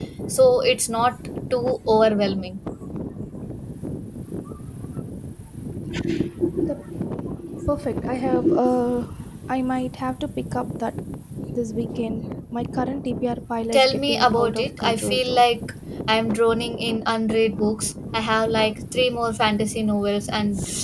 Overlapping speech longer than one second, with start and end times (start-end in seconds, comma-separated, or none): 13.7-15.4